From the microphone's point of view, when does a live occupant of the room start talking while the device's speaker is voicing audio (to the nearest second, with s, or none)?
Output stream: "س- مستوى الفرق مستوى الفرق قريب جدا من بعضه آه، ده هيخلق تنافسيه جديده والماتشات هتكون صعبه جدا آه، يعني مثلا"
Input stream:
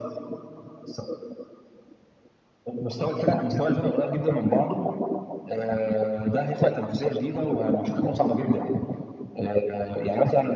none